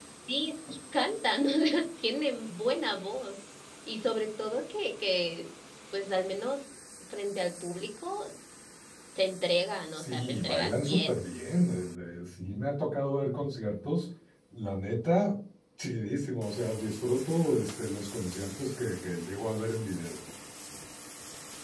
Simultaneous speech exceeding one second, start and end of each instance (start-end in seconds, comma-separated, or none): 9.9-11.2